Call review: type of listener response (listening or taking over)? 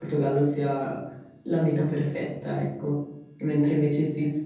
listening